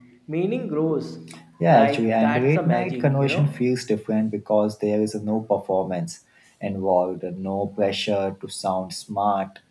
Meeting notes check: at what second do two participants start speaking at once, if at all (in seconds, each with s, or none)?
1.7 s